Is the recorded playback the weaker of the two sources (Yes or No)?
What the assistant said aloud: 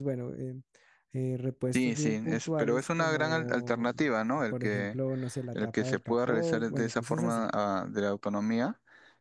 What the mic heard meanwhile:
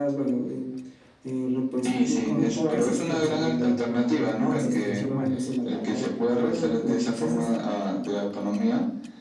No